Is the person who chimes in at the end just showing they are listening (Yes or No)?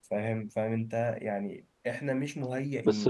No